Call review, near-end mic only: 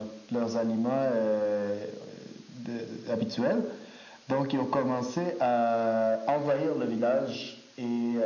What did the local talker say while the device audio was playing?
none

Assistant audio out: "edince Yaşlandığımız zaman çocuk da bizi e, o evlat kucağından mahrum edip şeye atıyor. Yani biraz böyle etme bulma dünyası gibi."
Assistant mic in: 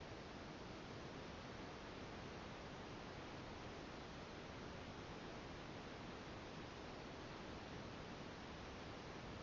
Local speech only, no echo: none

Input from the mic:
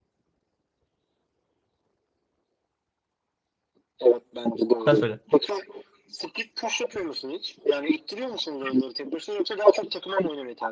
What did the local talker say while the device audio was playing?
Sen söyle.

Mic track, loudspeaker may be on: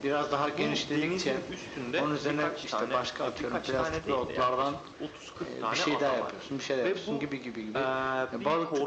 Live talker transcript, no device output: none

